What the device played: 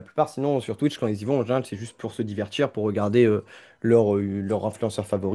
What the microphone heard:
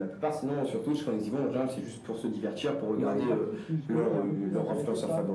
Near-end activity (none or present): present